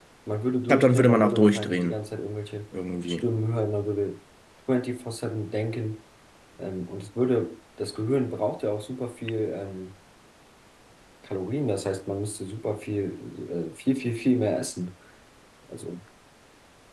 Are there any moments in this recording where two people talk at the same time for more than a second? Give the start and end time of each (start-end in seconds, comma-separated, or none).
0.7-1.9